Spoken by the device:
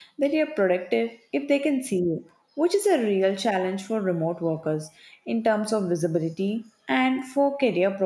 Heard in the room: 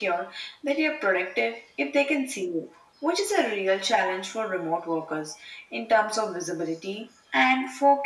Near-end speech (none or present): none